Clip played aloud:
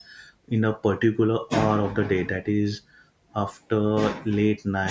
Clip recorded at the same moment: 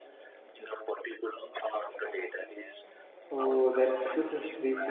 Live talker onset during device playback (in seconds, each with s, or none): 3.4 s